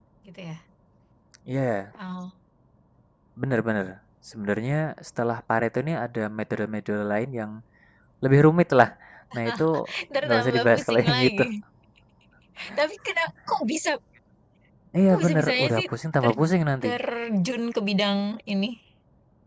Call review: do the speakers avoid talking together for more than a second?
No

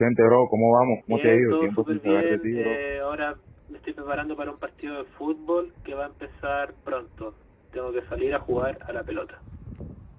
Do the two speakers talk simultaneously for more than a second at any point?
Yes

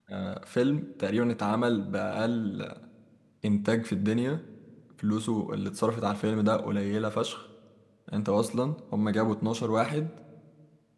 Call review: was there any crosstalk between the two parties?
No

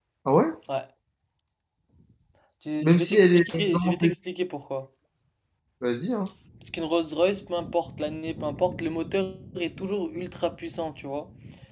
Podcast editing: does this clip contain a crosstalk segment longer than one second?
Yes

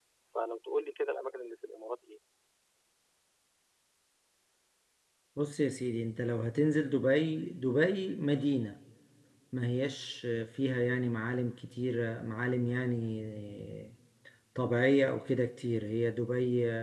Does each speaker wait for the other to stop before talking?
Yes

